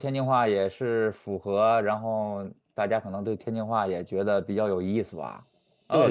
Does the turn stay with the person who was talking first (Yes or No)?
No